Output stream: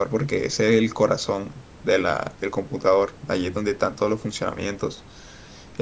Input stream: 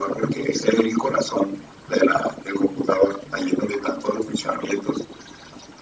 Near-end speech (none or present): none